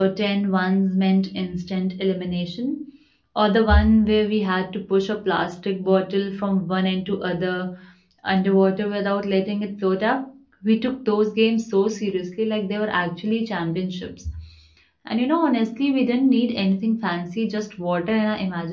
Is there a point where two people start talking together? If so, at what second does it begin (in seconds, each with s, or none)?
none